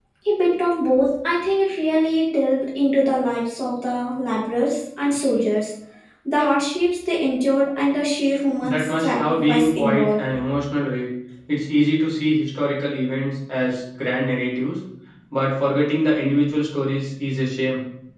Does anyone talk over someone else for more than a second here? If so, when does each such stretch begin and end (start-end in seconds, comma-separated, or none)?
8.6-10.3